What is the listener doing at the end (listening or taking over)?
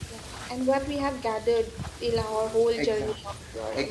taking over